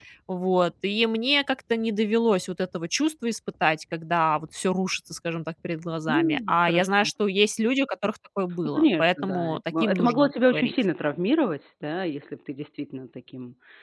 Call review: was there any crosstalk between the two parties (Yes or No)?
Yes